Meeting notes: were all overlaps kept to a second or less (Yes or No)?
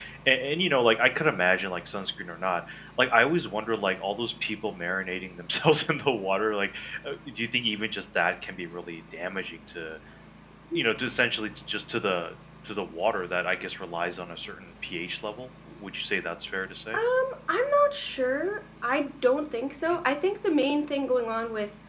Yes